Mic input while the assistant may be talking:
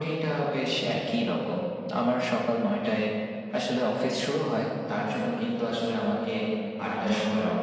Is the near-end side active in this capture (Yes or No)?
No